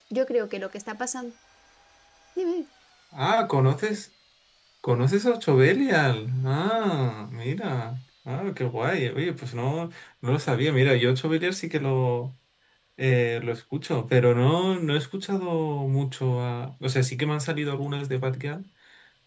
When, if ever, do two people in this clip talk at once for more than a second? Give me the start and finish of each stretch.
none

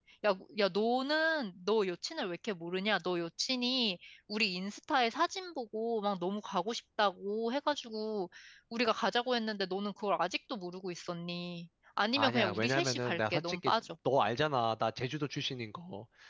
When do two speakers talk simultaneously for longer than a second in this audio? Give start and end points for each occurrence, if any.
12.2-13.7

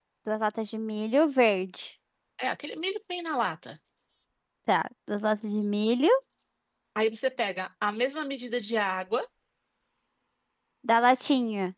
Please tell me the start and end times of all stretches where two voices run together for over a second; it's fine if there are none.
none

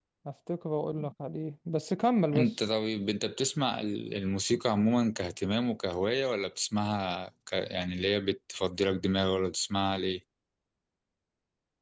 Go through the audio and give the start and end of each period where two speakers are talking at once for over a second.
none

